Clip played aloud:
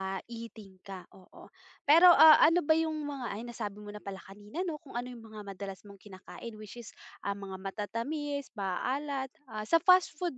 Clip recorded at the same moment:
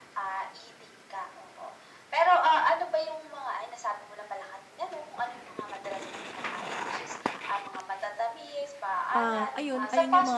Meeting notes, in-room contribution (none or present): present